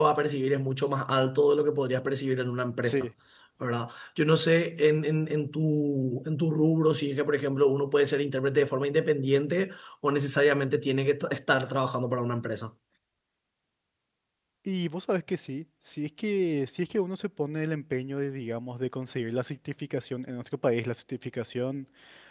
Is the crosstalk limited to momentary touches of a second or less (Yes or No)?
Yes